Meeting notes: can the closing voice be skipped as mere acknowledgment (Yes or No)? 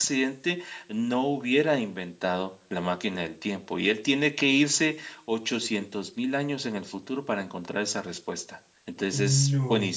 Yes